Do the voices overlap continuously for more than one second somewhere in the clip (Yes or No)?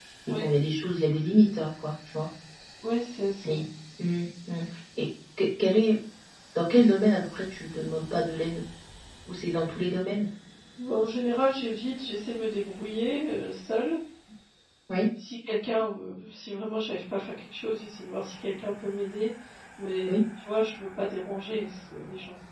No